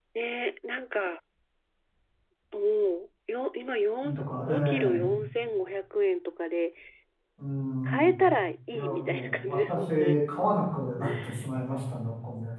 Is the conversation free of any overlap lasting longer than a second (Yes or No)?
No